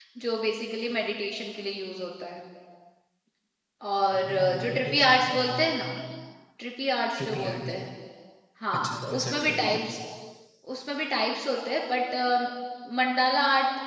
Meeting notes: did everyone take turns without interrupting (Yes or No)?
No